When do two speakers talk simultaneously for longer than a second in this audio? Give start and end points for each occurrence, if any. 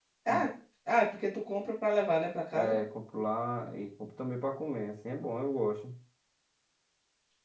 none

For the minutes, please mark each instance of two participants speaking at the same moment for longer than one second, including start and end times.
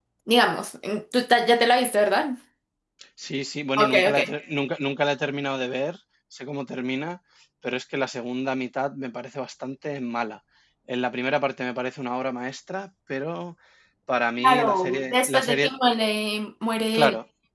14.4-15.7

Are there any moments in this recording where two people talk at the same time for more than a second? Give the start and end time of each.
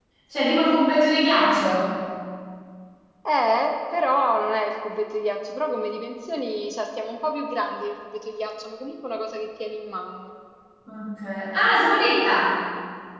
none

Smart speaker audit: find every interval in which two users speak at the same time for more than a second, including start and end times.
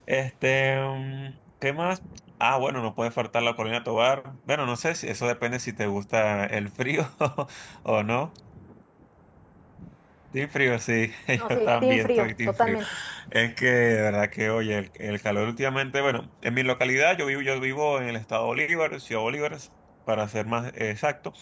11.5-12.8

